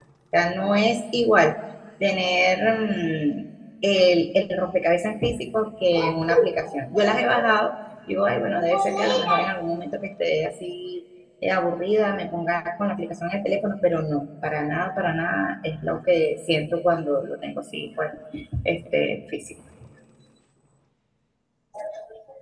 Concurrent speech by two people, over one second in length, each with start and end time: none

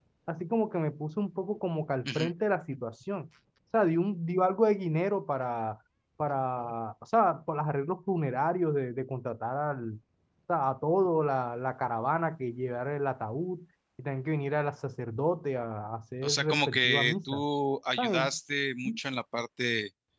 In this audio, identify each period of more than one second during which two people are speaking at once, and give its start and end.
16.2-17.4

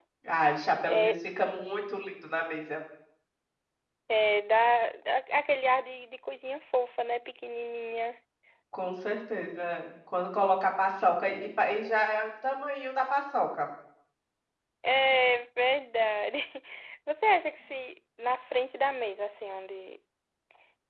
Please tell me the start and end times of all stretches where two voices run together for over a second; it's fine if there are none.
none

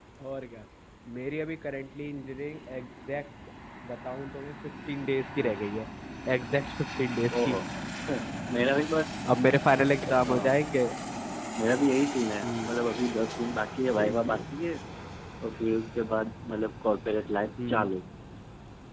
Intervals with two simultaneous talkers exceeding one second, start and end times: none

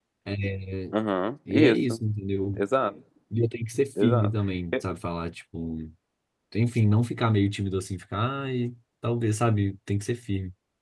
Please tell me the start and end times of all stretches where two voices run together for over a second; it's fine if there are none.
none

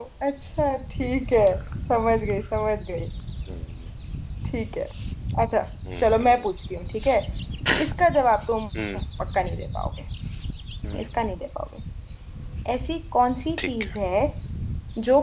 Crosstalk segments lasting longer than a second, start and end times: none

